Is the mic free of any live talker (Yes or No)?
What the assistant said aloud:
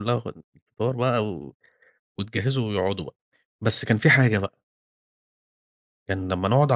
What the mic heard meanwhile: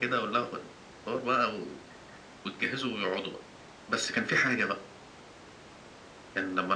Yes